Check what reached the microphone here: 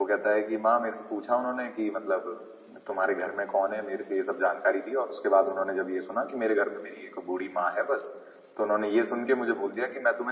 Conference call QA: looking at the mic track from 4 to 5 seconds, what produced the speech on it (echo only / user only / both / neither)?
user only